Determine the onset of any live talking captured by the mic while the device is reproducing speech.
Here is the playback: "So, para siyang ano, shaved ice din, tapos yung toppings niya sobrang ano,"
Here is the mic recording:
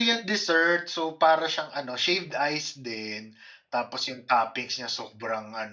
none

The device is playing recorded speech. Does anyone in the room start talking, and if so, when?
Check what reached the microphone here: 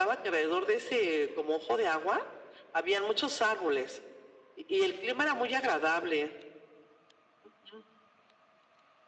none

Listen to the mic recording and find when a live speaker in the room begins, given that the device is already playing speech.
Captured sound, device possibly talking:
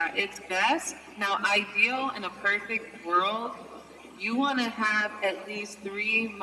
none

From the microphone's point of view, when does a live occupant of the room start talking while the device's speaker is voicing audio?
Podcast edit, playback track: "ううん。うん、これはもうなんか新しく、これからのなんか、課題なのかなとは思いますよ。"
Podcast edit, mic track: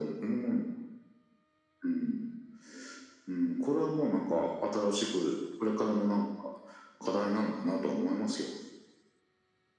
none

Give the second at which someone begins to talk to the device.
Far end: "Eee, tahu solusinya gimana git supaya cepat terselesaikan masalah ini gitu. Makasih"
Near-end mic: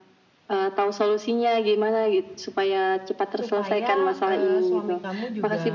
3.4 s

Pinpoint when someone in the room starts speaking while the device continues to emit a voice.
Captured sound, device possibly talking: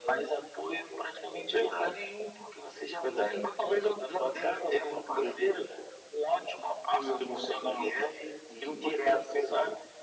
none

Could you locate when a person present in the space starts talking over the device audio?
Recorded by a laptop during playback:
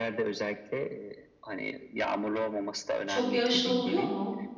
3.0 s

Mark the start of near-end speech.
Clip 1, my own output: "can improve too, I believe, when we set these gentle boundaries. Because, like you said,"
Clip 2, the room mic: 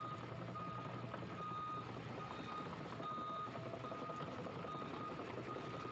none

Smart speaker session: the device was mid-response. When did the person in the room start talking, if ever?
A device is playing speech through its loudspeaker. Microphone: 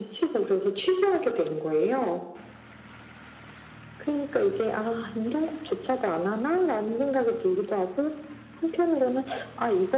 none

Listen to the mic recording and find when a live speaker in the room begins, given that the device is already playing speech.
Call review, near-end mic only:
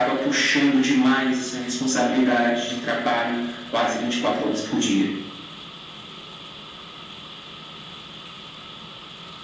none

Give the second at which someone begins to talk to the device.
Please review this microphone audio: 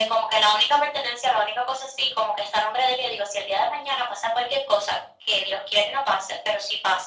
none

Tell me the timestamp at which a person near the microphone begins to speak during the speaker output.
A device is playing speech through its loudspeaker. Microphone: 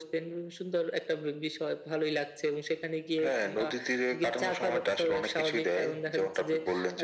none

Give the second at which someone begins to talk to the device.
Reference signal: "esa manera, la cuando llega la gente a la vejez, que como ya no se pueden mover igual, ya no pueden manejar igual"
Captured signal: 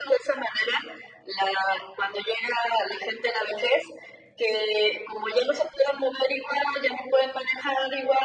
none

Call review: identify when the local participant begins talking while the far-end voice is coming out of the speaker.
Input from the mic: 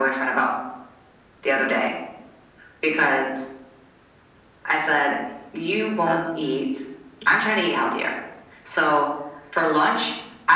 6.1 s

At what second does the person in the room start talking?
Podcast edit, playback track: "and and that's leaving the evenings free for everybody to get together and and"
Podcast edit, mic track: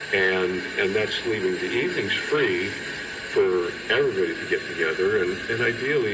none

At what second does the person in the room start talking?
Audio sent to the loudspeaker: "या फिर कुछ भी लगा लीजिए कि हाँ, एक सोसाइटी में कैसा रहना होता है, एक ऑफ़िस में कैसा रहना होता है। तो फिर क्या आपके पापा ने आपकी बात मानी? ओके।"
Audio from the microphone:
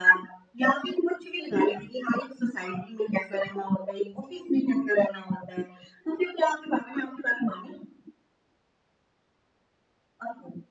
none

